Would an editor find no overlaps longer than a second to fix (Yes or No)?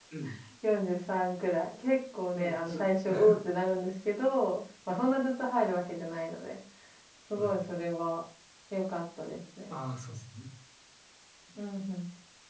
Yes